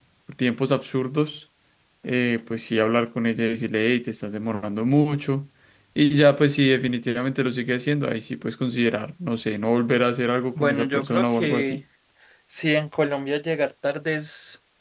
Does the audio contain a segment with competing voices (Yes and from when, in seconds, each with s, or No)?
Yes, from 10.6 s